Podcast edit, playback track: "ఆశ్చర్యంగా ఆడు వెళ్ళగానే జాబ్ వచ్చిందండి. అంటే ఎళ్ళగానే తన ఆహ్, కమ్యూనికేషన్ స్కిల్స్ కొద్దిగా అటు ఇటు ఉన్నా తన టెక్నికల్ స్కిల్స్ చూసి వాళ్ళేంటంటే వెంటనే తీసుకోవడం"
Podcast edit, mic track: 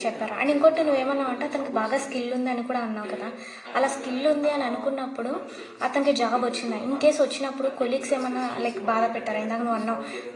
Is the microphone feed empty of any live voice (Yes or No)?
No